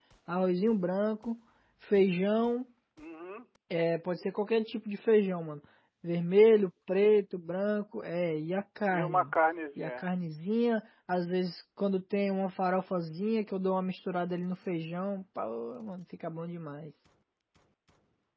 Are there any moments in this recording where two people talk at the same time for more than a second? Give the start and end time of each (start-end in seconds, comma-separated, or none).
none